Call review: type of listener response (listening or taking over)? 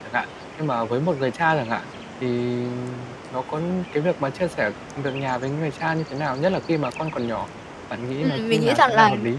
taking over